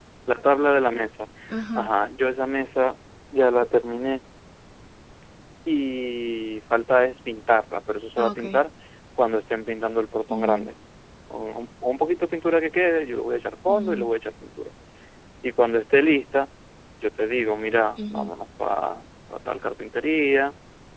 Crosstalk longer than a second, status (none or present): none